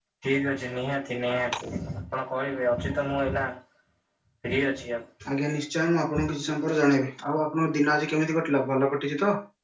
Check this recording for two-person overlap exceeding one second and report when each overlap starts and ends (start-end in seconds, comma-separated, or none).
none